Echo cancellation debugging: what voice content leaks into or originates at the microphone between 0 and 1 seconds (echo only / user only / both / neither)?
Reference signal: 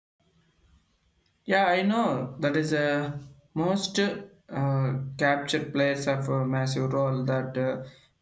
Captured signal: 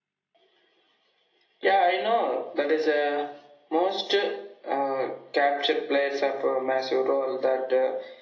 neither